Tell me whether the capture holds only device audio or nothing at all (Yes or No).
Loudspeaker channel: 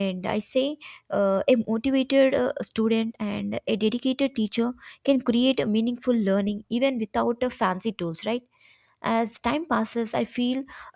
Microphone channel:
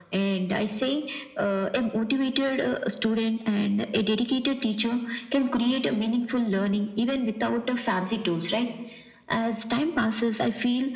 Yes